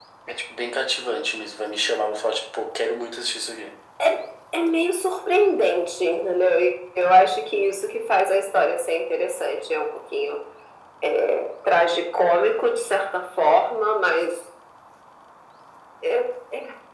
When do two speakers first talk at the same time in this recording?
none

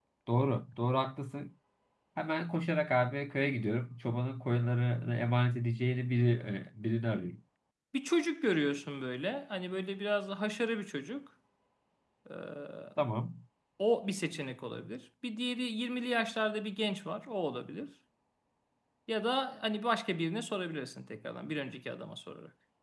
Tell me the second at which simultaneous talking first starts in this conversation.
none

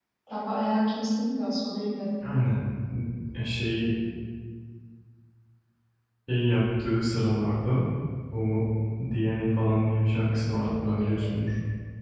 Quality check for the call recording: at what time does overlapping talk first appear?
10.1 s

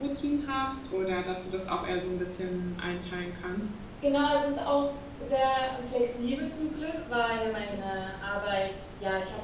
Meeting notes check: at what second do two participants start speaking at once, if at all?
none

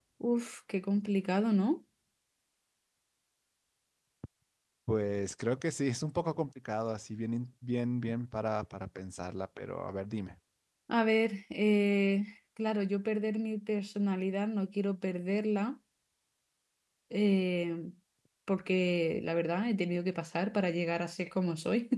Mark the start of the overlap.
none

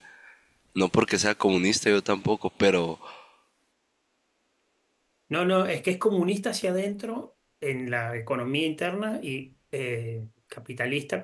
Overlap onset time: none

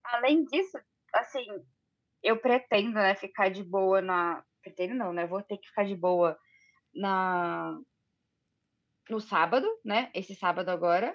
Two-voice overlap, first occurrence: none

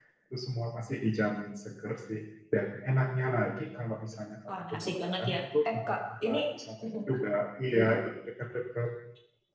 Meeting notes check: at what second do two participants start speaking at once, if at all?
4.5 s

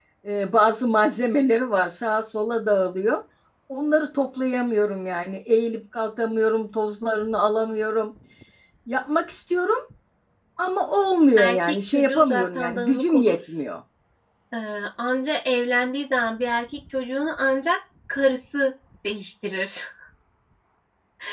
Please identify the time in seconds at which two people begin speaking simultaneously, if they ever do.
11.4 s

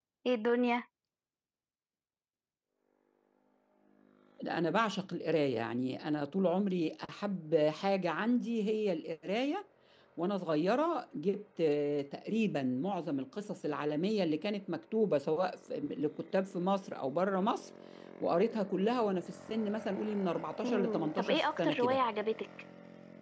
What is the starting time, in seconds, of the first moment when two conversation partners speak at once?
20.6 s

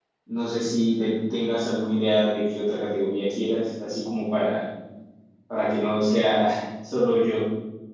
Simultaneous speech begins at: none

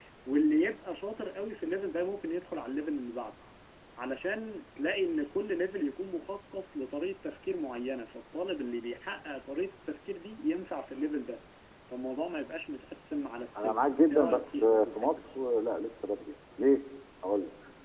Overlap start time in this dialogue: 13.6 s

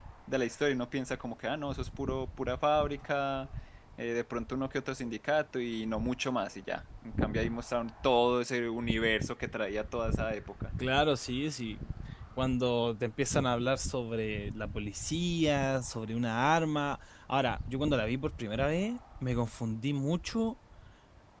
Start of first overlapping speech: none

